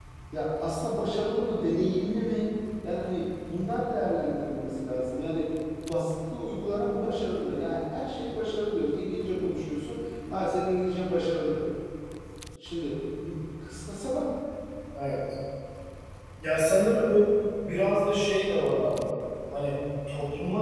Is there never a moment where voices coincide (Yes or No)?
Yes